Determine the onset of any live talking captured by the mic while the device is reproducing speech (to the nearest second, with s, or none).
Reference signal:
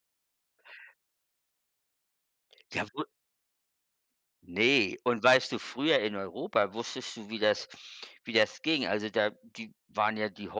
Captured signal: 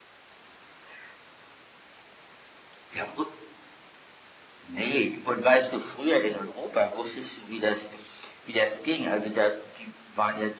none